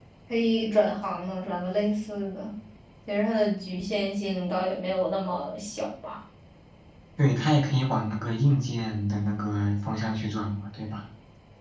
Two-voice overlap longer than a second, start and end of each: none

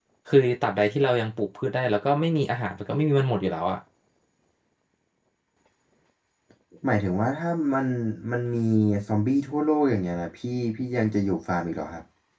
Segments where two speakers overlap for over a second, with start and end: none

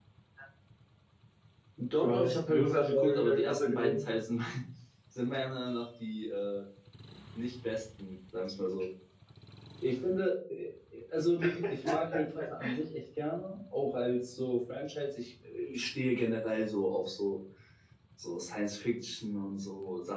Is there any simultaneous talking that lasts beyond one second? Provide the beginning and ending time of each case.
2.0-4.0

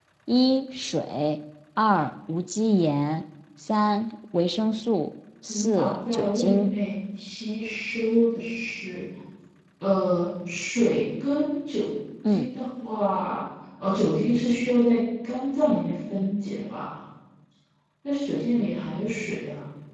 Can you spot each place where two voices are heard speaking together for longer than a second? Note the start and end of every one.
5.5-6.7

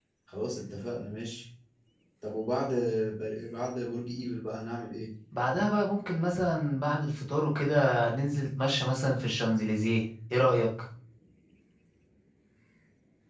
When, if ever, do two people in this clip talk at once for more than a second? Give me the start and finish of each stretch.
none

